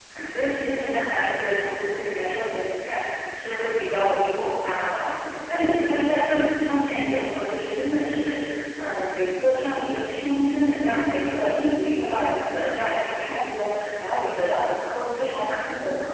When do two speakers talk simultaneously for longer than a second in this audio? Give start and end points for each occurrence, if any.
none

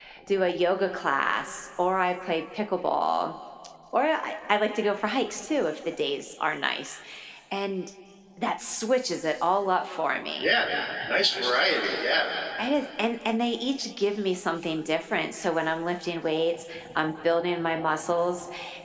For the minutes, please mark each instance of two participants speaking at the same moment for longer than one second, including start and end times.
none

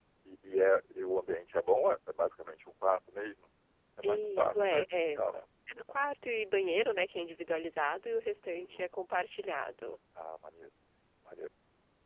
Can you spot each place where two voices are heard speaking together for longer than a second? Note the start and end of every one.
4.0-5.3

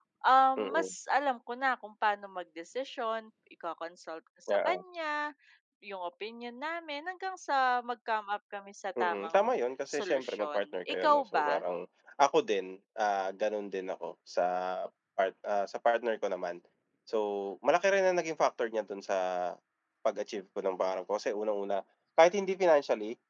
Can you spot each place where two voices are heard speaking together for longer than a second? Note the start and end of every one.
10.0-11.5

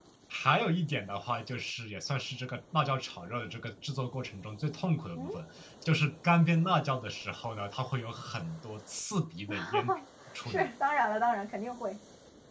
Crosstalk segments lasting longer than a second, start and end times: none

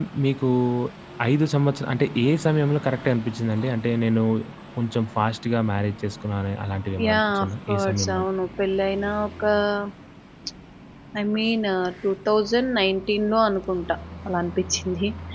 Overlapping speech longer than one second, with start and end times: 7.0-8.2

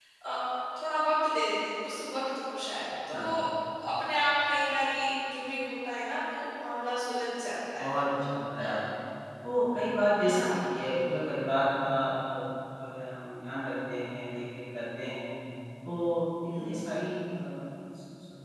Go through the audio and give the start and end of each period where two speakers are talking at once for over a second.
none

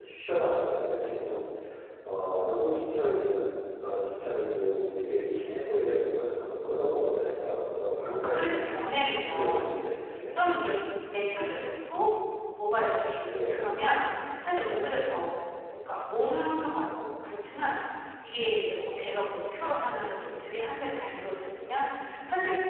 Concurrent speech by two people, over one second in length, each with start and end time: 8.2-9.8

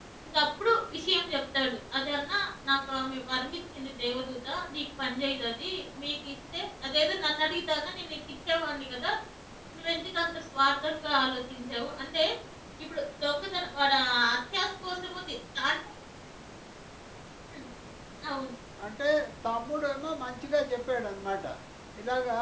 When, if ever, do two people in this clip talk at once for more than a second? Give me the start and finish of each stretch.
none

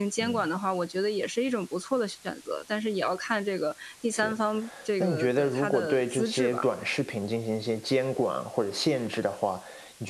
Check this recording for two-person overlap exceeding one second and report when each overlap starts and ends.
5.0-6.7

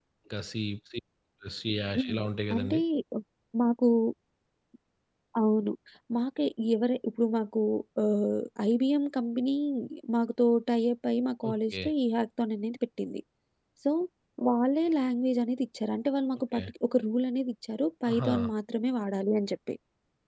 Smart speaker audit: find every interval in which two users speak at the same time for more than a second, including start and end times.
none

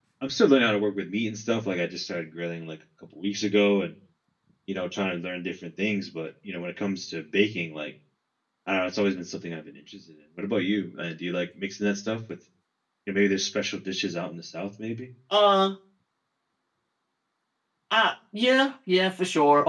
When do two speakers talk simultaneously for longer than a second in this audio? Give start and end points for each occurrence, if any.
none

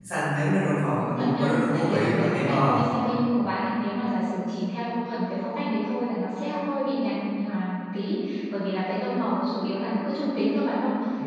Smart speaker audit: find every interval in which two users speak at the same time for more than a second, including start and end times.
1.0-2.7

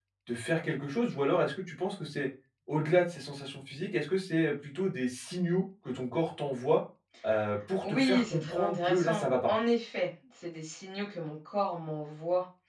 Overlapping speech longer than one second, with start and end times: 7.8-9.5

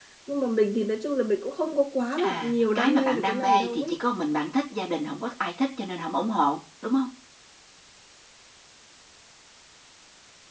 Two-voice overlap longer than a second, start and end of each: 2.2-3.9

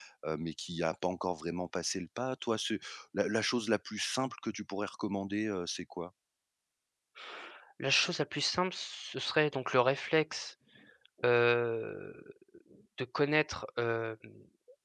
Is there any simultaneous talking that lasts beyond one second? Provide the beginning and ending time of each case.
none

